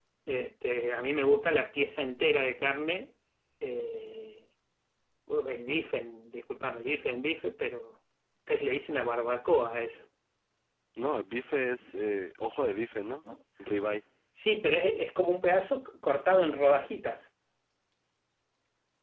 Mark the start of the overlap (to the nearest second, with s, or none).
none